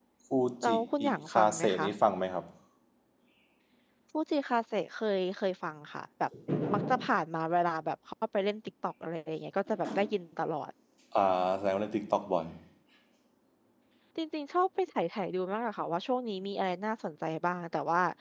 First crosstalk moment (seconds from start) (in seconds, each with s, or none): 0.6 s